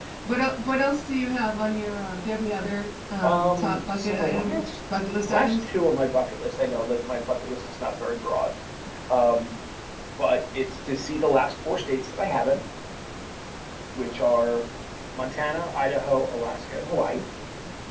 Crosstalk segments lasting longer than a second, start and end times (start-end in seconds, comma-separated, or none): 3.2-4.6